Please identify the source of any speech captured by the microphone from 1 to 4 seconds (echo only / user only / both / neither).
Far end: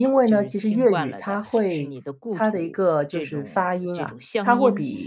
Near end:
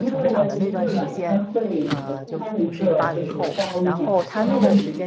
both